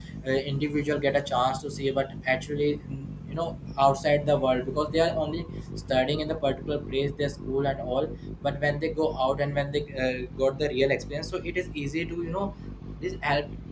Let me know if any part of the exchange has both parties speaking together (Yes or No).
No